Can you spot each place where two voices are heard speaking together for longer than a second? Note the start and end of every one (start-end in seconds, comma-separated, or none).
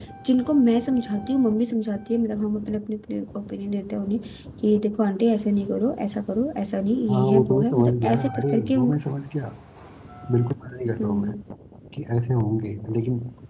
7.1-8.9